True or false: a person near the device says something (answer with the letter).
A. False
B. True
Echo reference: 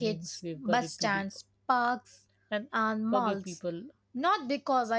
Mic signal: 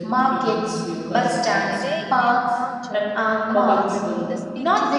B